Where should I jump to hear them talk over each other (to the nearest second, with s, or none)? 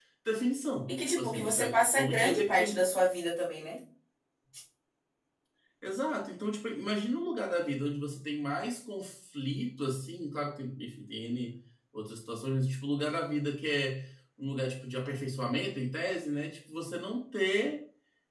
1 s